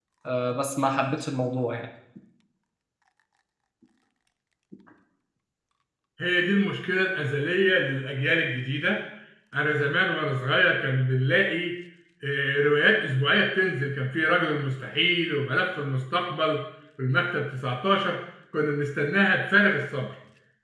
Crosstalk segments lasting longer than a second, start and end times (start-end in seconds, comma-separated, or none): none